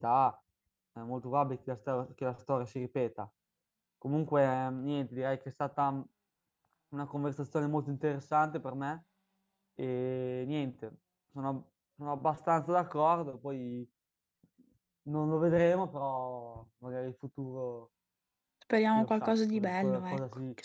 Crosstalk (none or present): present